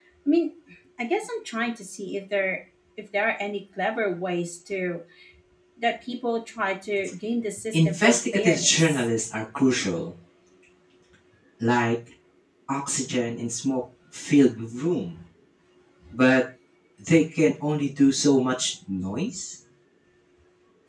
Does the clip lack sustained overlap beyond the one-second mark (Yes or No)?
No